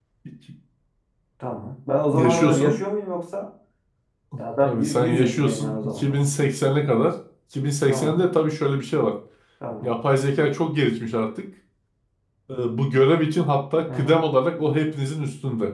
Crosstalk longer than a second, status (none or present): present